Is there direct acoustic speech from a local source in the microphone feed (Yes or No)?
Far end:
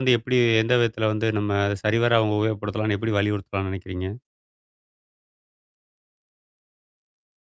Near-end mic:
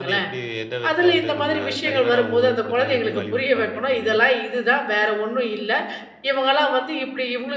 Yes